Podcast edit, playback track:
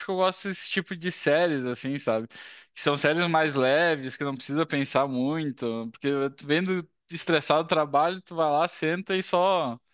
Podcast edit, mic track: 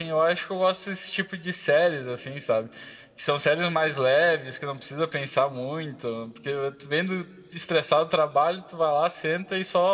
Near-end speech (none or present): none